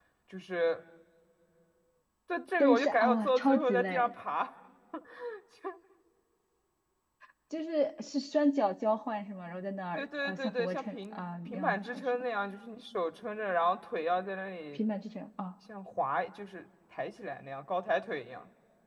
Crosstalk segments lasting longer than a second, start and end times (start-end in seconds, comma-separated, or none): 2.6-4.1, 9.9-12.2